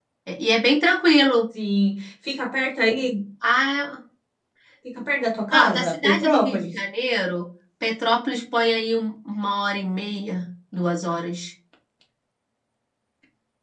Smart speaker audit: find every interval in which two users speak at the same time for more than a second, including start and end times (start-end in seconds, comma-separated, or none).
5.5-6.8